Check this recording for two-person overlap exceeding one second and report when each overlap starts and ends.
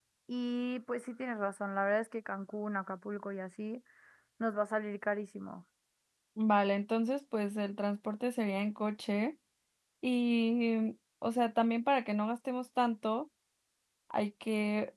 none

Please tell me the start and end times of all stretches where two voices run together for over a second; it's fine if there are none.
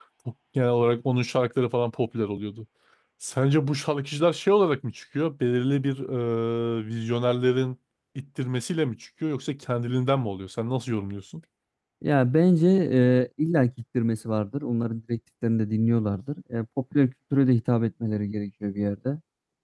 none

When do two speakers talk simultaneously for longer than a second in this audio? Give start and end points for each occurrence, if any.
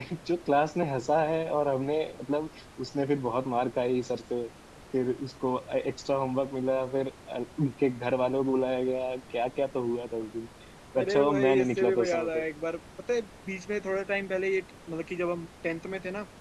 11.0-12.3

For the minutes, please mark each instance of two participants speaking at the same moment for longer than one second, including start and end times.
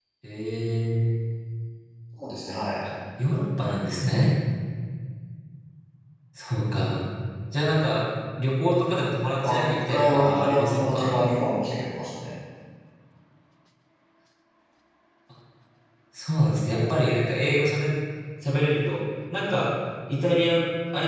9.4-11.3

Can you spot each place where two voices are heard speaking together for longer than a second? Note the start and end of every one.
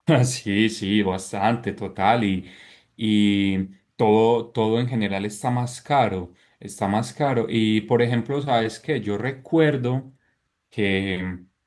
none

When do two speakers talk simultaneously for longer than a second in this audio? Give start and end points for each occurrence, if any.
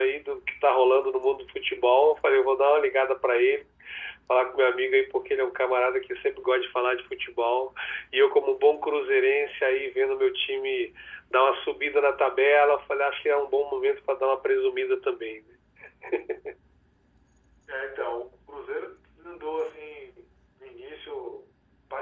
none

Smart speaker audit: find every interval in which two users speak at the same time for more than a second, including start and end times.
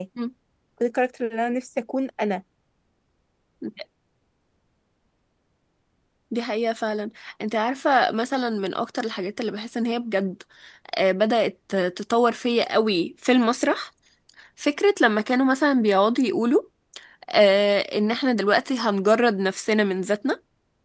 none

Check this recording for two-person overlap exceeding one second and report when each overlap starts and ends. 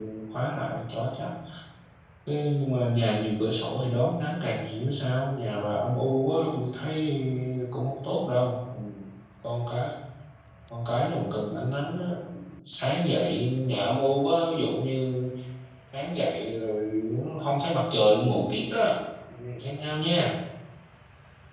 none

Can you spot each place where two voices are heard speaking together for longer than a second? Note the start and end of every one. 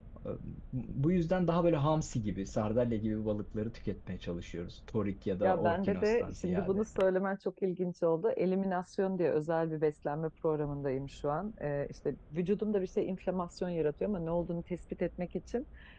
5.4-6.8

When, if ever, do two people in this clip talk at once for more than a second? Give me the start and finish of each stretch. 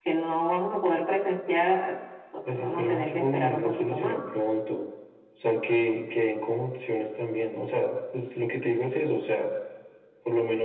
2.5-4.2

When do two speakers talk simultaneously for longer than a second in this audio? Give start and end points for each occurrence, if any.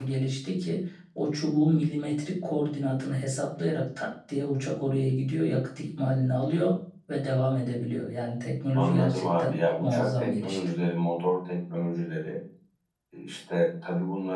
8.8-10.6

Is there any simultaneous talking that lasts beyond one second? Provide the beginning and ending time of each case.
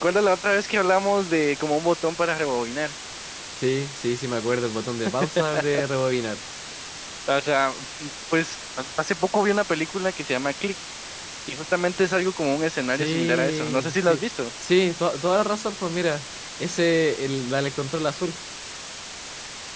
12.9-14.2

